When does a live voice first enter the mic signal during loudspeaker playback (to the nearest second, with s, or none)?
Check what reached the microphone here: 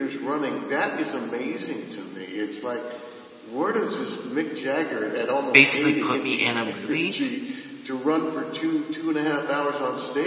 6 s